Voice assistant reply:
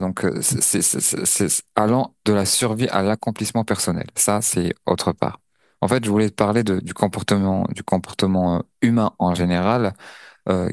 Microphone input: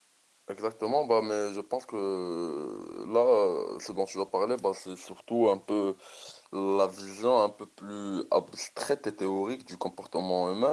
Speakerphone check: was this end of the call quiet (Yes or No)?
No